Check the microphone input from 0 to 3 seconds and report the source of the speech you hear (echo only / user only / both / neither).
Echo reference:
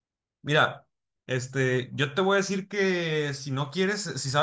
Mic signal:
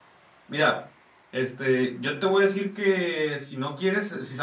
echo only